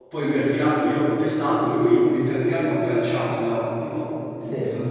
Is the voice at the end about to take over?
No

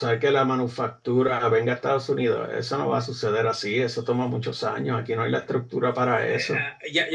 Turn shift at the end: Yes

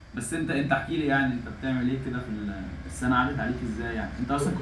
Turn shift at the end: No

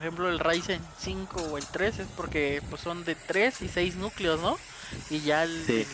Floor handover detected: No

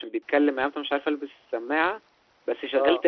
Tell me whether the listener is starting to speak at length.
No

